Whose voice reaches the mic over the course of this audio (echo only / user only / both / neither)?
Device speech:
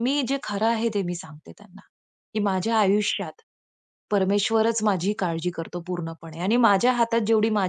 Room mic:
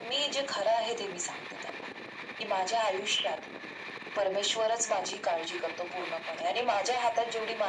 echo only